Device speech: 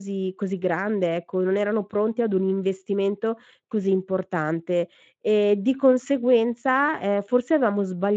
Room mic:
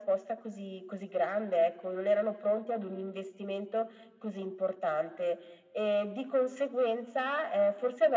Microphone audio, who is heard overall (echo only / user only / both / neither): echo only